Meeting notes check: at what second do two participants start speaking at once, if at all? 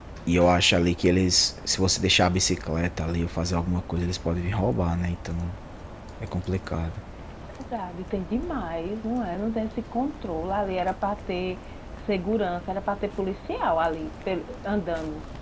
none

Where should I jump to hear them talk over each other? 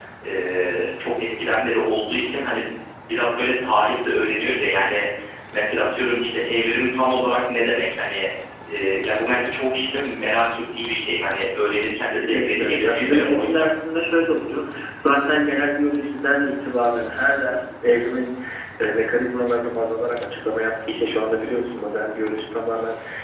12.1 s

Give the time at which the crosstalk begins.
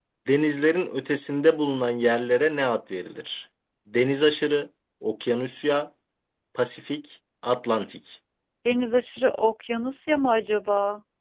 none

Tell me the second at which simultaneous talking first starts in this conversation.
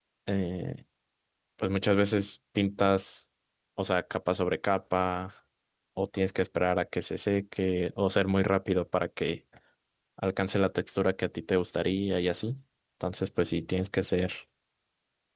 none

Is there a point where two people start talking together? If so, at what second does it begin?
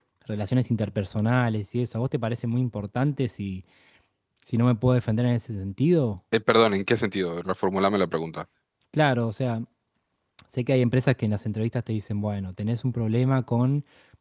none

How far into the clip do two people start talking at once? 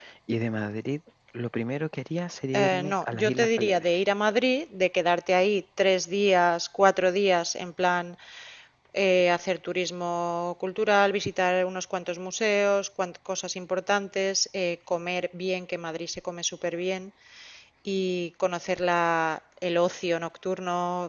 2.5 s

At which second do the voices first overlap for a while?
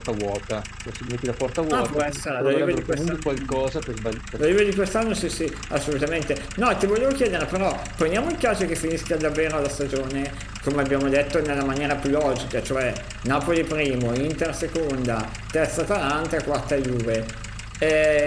1.7 s

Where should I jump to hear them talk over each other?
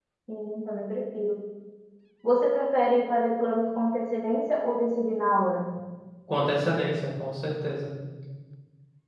none

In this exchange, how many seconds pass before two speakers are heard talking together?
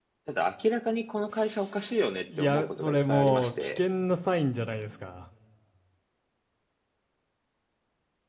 2.3 s

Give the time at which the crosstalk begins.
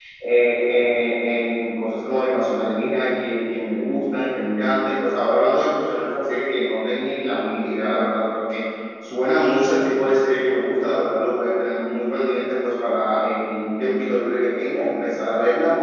none

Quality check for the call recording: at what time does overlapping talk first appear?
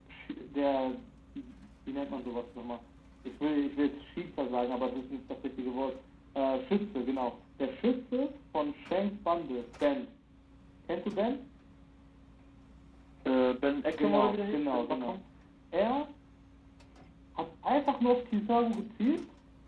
13.9 s

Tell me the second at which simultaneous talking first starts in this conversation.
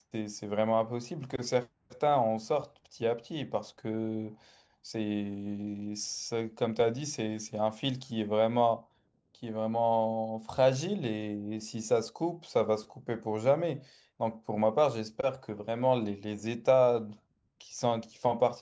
none

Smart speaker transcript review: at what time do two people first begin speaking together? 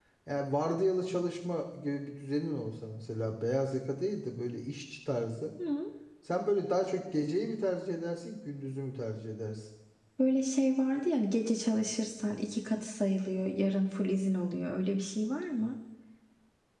none

